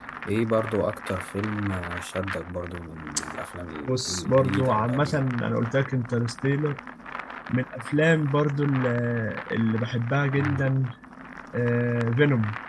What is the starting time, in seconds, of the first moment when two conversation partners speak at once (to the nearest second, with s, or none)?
4 s